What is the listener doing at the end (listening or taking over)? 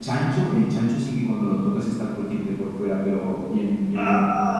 listening